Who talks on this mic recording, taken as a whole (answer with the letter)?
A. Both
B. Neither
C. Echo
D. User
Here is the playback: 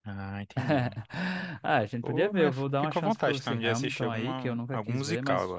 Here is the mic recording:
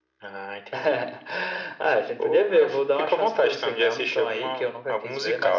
C